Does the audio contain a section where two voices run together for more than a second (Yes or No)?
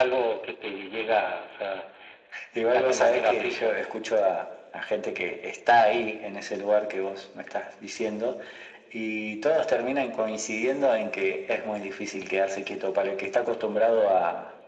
Yes